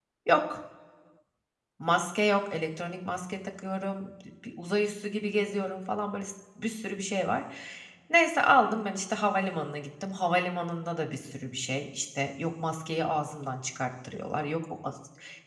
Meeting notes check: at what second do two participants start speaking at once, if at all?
none

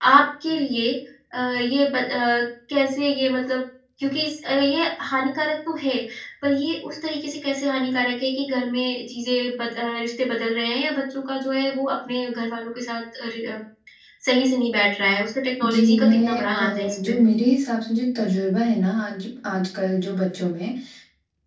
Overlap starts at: 16 s

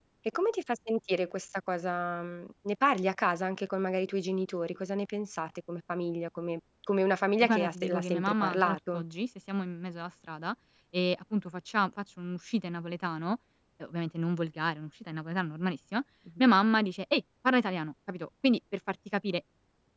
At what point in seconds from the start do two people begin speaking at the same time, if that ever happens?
7 s

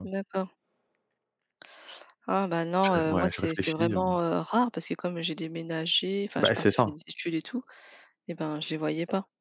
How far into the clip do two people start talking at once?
3 s

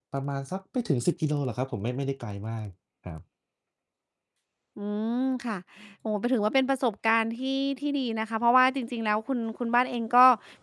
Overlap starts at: none

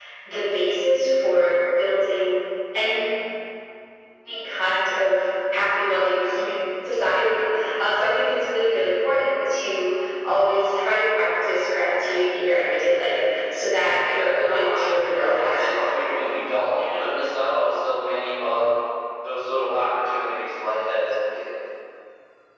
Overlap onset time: 14 s

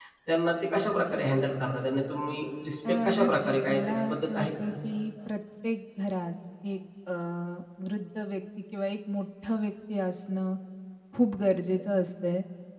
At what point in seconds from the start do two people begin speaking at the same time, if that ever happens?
3 s

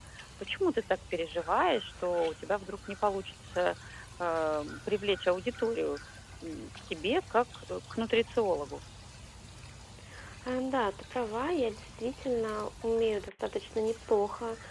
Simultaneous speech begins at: none

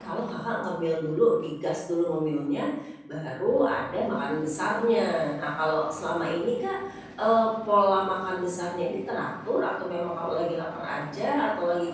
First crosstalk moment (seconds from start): none

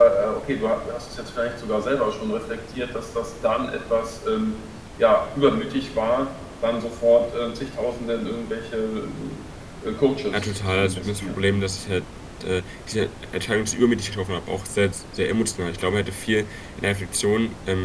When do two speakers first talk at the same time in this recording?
10 s

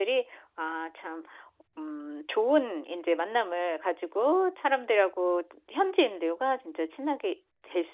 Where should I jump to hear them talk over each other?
none

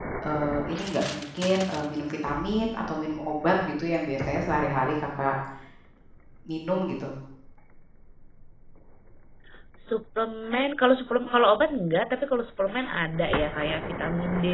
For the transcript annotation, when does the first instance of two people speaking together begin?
none

